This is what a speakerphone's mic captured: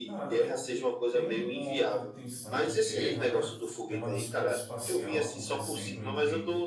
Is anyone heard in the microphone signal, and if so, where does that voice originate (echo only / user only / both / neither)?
both